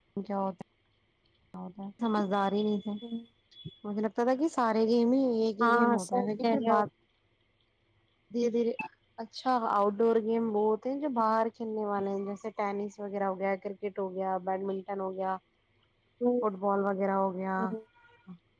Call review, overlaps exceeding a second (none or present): present